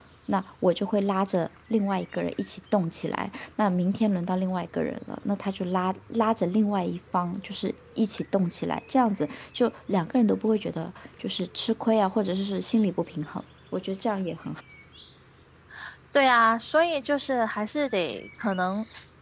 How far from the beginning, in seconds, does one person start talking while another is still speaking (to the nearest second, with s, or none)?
none